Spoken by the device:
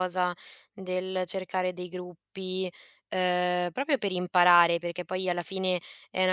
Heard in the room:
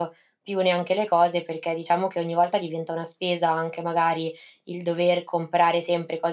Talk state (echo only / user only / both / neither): user only